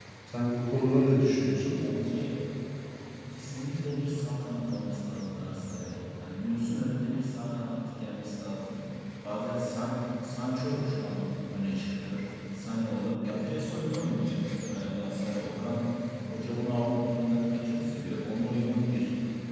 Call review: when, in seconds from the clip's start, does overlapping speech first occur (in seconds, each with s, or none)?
none